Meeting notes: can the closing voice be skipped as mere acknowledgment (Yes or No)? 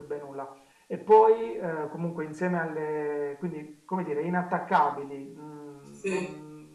Yes